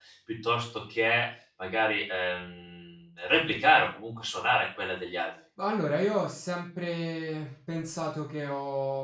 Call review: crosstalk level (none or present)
none